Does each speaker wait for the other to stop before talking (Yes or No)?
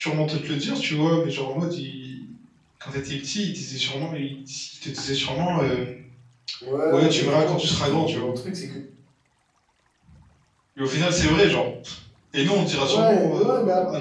No